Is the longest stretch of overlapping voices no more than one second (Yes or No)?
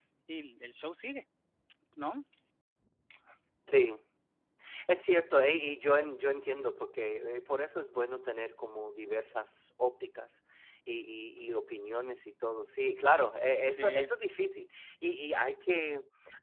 Yes